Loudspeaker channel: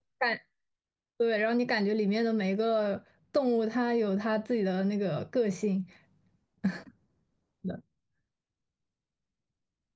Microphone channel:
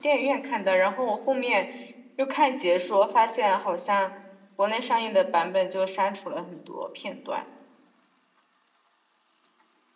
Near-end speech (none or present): present